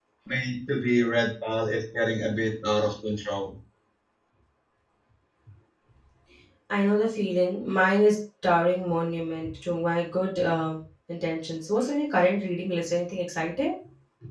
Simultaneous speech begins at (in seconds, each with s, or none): none